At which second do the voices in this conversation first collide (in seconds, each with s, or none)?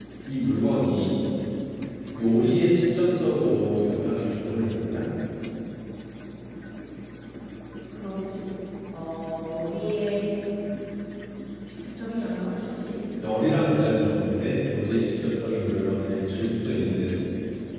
none